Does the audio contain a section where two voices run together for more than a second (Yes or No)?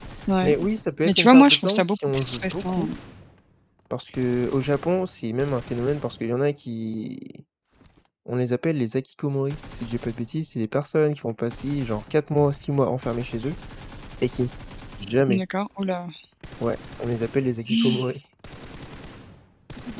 Yes